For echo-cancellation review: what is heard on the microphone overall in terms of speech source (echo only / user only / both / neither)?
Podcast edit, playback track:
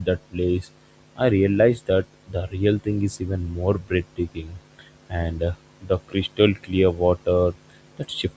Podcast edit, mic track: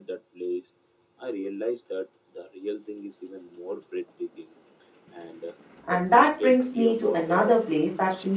both